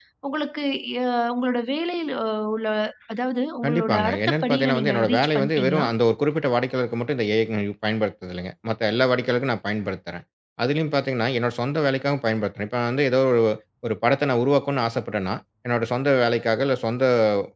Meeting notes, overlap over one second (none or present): present